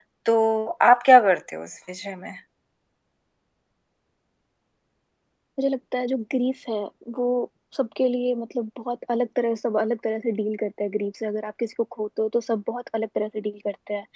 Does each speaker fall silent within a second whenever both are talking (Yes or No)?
Yes